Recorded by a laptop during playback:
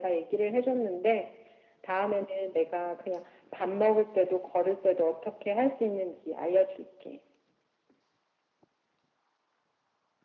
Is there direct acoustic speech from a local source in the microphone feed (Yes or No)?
No